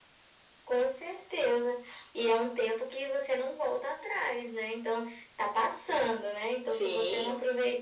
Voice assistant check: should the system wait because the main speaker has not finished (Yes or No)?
Yes